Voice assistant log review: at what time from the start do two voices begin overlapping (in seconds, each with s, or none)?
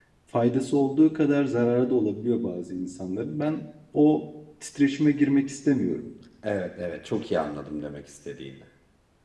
none